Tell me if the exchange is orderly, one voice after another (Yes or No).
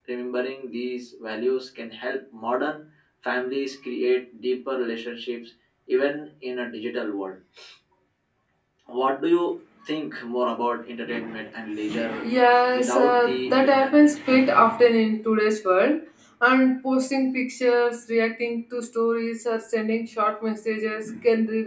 No